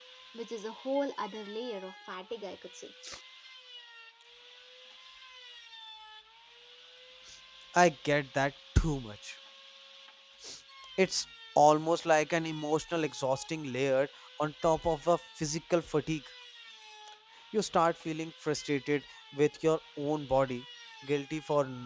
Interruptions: none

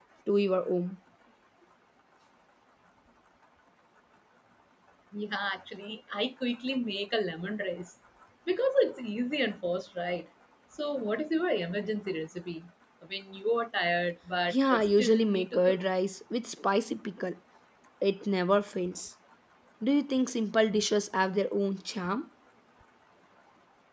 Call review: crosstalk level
present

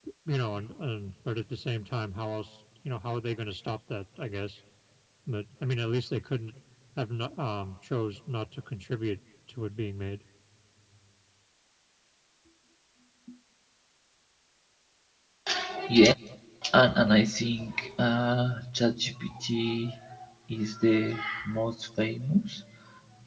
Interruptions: none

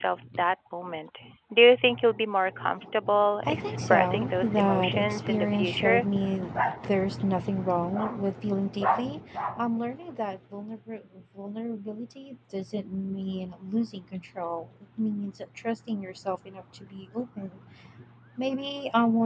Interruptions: present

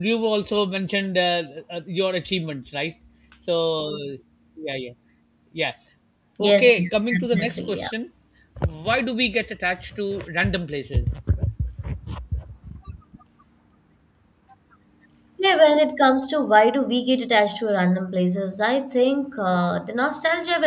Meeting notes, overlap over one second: present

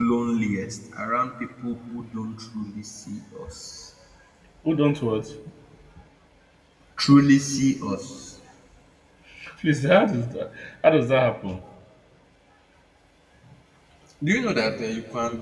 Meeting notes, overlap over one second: none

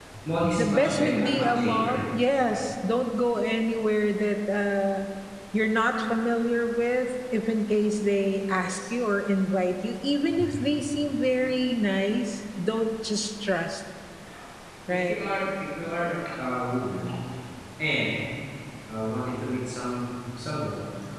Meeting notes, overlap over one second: present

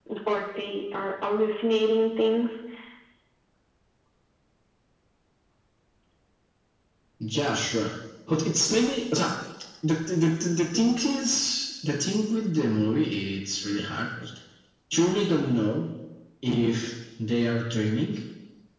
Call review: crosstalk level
none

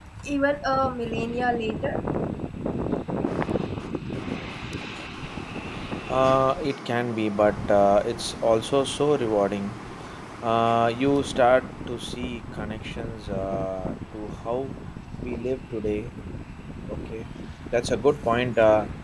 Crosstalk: none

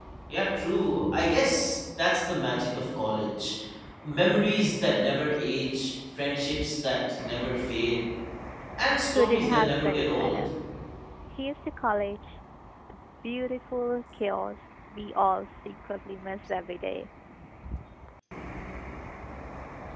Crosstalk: present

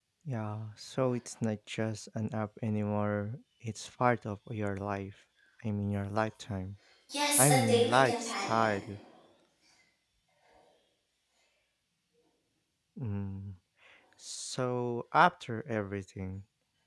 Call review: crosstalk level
present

